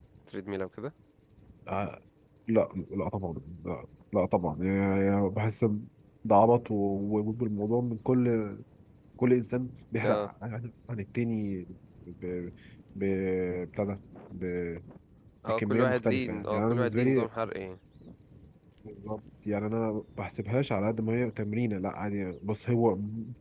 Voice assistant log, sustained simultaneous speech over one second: present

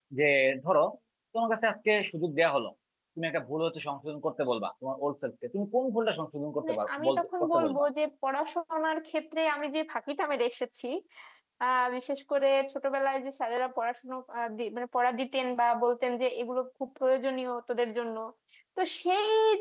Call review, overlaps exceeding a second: present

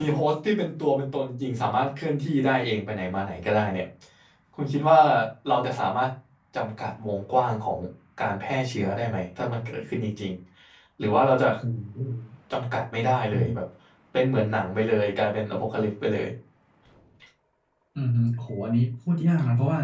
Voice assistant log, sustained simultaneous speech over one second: none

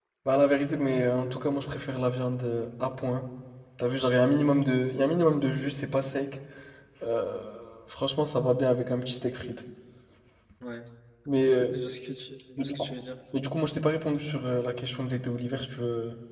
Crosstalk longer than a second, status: none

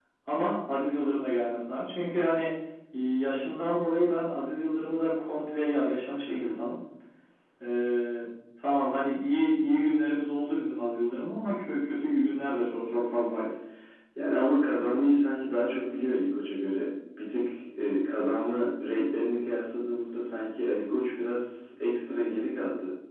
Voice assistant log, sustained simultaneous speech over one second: none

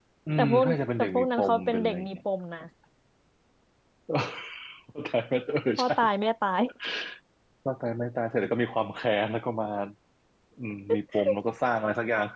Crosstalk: present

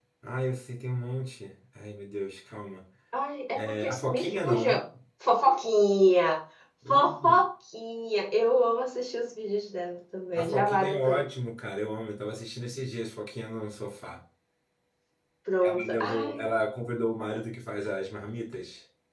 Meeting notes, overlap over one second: present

